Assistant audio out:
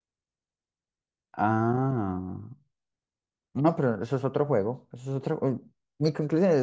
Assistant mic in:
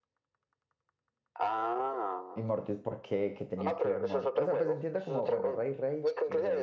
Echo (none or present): present